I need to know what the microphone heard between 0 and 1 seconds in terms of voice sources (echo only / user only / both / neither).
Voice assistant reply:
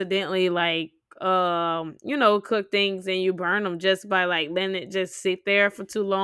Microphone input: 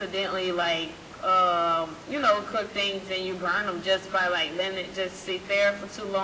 echo only